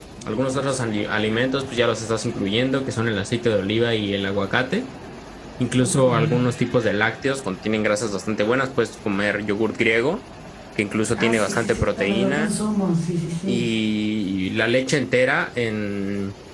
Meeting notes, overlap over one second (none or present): present